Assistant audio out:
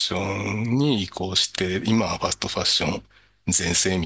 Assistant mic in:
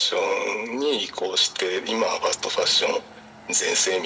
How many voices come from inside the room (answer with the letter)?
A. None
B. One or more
A